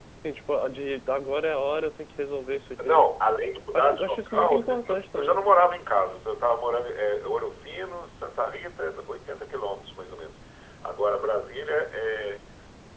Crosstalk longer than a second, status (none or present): present